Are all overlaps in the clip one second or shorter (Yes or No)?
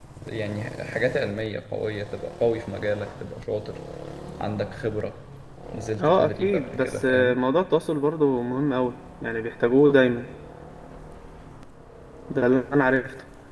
No